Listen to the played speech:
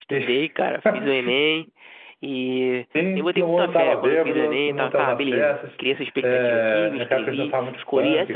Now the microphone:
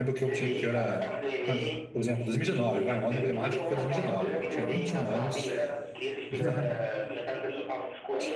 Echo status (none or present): present